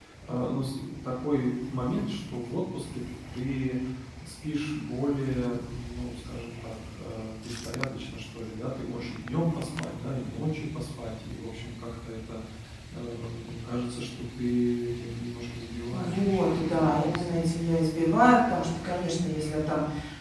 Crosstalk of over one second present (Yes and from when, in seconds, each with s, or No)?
Yes, from 15.9 s